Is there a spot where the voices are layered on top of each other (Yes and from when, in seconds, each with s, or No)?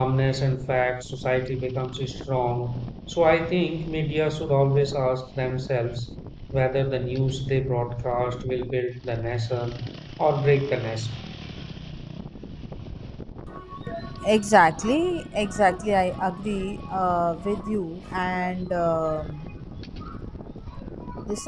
No